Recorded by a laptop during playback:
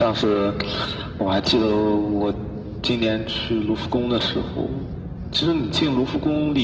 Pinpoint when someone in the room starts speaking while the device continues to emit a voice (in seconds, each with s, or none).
none